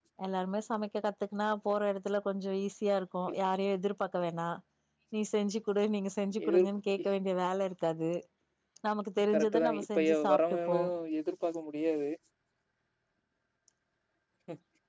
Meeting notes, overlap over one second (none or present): present